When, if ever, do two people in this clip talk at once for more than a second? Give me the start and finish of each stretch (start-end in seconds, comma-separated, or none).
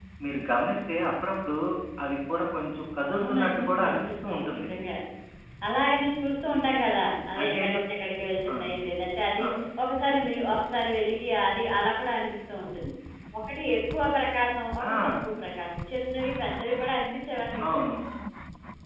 3.2-4.7